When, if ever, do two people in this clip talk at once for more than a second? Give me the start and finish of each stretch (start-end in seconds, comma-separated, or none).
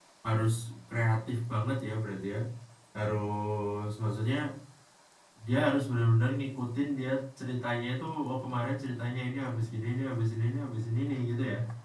none